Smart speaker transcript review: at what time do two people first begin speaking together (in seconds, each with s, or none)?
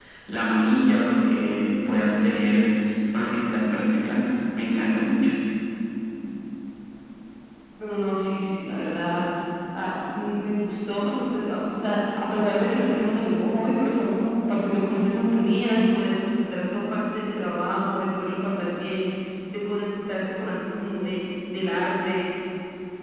none